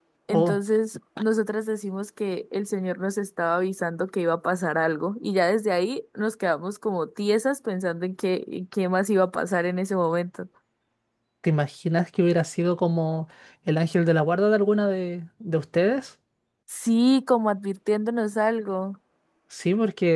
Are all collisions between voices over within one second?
Yes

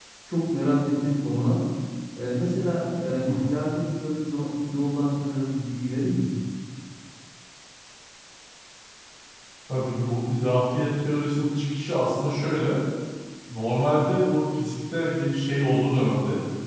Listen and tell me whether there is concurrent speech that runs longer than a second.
No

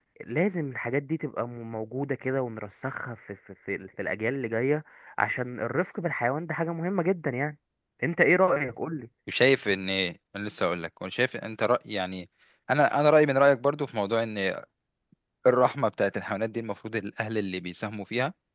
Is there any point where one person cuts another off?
No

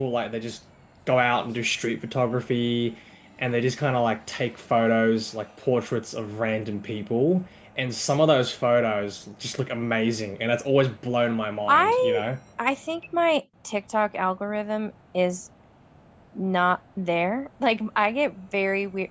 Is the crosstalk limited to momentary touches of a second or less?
Yes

